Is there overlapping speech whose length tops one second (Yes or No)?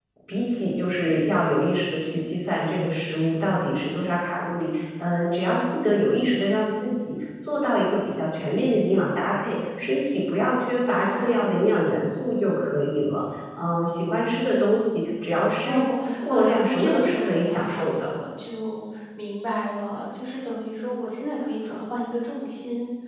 Yes